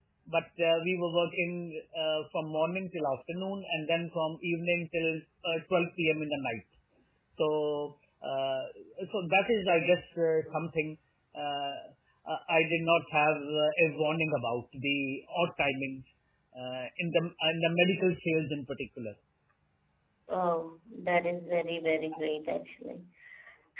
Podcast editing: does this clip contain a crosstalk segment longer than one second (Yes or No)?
No